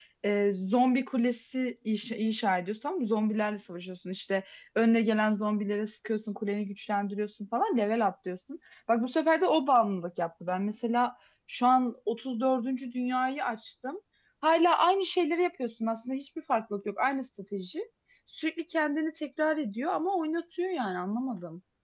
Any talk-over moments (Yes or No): No